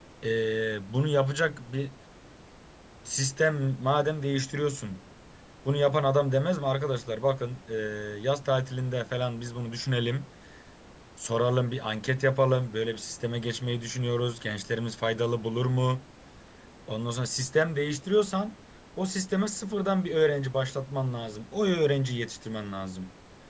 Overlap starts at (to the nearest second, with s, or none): none